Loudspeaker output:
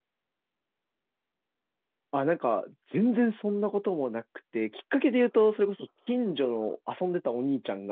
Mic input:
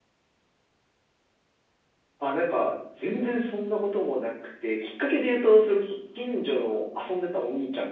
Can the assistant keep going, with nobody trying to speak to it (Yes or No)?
Yes